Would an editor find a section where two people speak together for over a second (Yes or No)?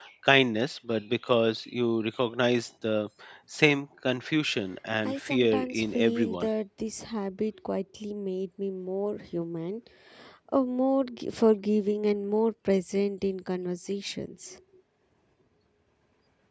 Yes